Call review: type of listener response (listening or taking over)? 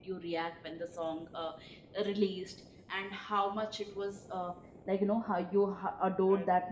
listening